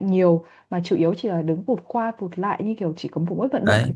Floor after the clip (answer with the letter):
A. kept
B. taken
B